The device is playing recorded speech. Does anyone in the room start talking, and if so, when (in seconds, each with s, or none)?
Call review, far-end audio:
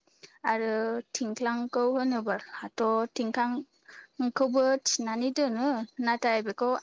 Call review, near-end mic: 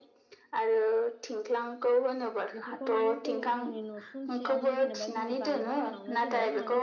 2.6 s